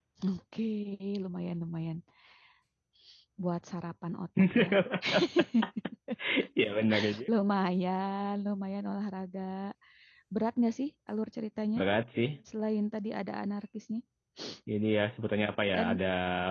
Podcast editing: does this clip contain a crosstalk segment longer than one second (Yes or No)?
No